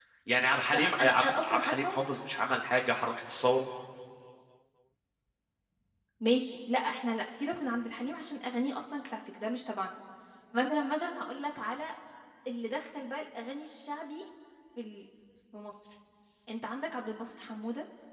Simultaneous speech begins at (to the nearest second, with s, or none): 1 s